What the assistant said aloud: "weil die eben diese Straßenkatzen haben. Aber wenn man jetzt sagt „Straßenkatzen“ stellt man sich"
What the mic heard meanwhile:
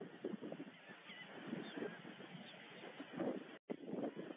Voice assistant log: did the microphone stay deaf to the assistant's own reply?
Yes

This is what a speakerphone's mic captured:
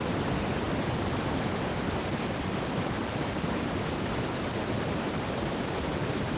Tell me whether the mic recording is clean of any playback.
Yes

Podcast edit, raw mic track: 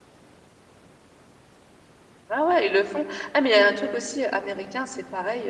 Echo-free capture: Yes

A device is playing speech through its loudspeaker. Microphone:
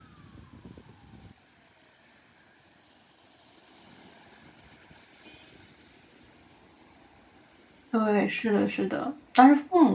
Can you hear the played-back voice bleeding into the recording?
No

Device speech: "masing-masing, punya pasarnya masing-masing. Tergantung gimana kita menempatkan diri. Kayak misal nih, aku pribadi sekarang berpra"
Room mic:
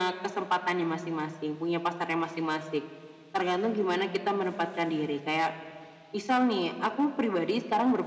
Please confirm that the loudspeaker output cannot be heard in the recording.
No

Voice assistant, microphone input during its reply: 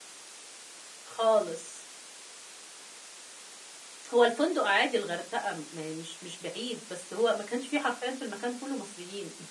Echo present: No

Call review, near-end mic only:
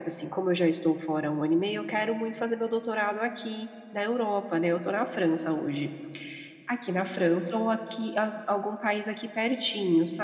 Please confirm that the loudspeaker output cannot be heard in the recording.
No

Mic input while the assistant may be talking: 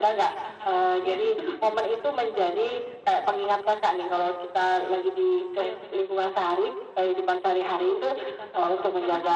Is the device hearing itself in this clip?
Yes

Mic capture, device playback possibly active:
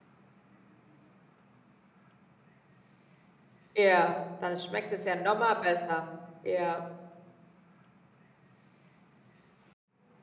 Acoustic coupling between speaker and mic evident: No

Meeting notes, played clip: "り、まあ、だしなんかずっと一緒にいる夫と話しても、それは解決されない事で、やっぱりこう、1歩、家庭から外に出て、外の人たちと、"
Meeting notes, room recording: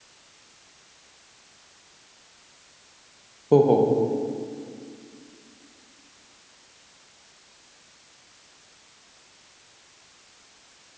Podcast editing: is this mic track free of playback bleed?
Yes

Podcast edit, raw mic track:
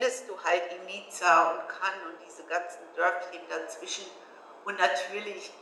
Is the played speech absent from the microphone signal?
No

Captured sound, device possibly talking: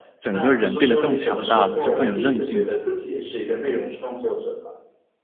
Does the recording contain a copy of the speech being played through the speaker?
Yes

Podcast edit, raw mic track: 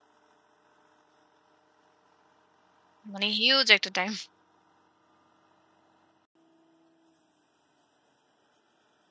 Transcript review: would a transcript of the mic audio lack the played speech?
Yes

